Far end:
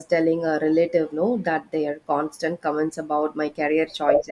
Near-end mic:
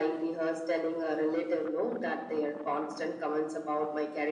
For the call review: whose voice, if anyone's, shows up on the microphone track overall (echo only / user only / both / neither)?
echo only